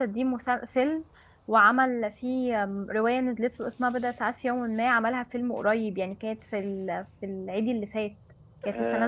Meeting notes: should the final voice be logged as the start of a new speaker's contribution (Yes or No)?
Yes